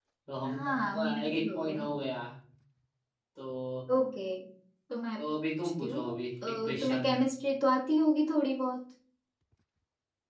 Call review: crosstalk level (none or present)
present